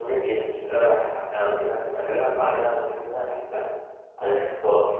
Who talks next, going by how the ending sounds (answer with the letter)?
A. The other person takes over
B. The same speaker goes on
B